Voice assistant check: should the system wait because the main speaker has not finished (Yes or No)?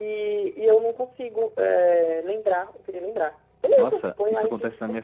No